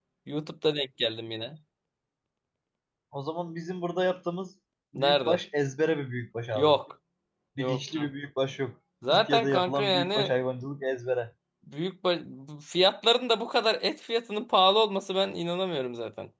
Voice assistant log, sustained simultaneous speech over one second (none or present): present